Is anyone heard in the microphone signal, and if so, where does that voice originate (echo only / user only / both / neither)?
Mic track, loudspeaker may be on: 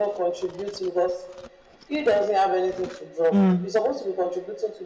both